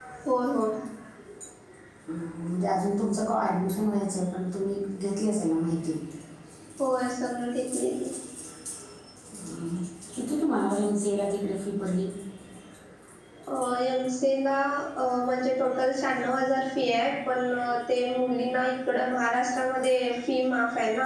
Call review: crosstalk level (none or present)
none